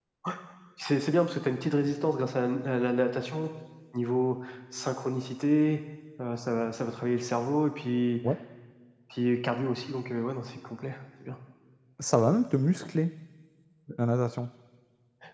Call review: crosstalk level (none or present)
none